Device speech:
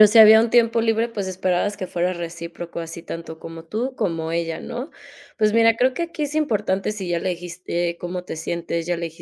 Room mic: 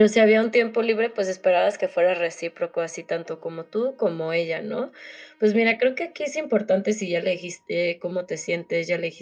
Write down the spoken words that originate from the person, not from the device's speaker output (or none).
none